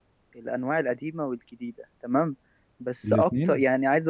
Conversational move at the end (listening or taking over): listening